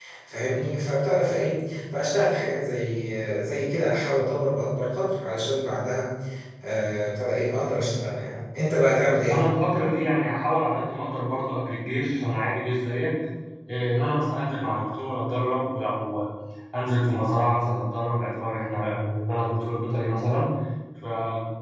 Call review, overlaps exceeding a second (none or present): none